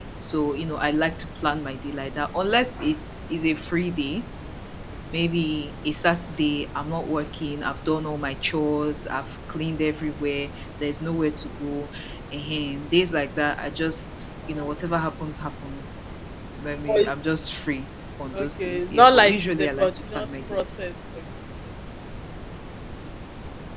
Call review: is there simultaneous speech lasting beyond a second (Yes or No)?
Yes